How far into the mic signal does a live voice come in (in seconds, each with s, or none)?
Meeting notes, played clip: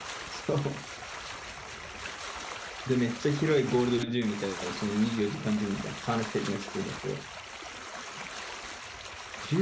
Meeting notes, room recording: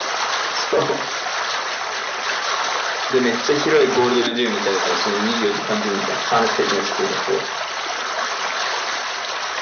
none